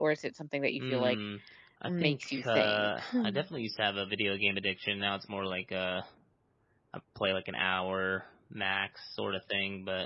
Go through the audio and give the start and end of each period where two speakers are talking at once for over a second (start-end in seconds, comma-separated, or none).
1.9-3.4